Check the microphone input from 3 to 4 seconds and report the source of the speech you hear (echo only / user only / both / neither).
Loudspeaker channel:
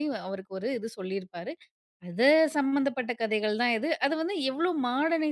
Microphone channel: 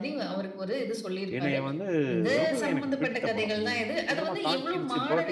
both